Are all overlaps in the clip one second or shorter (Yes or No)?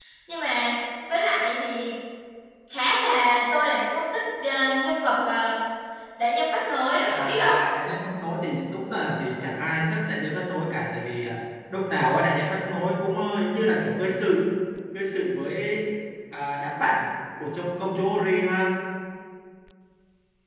Yes